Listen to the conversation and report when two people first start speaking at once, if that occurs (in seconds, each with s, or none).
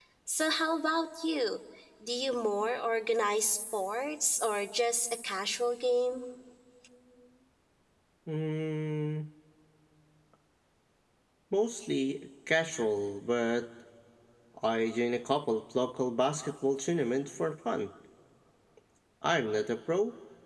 none